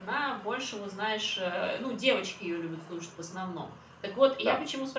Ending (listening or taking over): listening